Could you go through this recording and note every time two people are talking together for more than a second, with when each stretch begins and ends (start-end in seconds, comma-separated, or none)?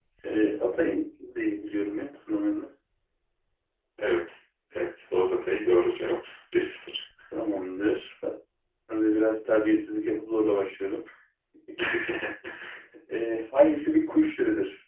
none